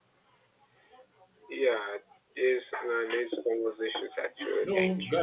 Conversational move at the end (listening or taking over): taking over